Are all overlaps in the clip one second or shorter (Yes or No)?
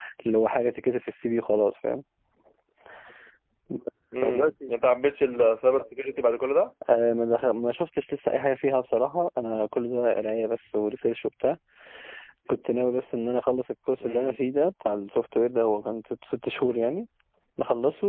Yes